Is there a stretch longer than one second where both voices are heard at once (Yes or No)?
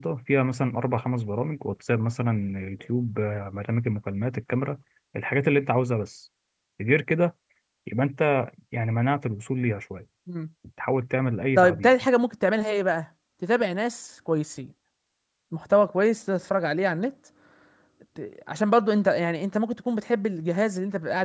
No